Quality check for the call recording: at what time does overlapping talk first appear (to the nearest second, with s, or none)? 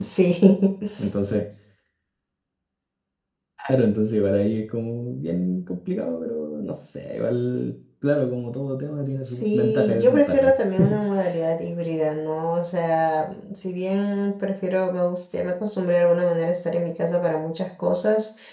9 s